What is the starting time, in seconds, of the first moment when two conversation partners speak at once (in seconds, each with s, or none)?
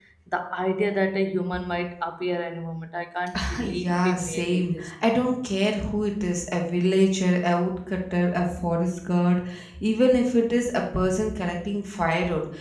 3.3 s